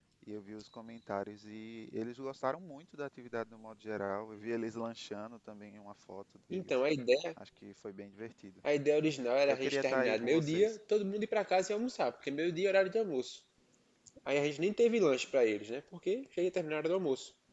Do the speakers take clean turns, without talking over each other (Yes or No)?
No